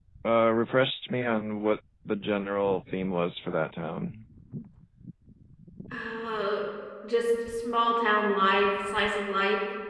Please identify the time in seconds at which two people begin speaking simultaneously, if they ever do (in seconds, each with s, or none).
none